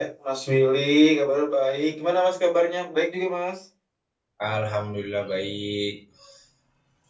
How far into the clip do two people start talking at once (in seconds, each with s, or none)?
none